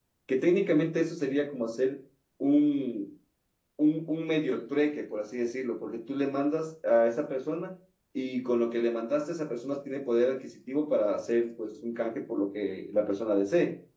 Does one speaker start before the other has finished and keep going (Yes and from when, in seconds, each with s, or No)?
No